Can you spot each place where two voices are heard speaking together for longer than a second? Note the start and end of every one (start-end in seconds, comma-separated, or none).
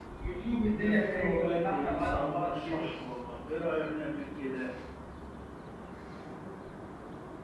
0.7-2.9